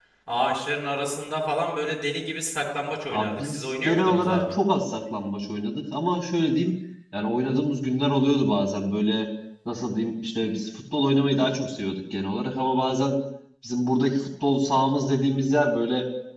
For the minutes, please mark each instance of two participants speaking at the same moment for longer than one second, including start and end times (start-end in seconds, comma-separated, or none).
3.1-4.4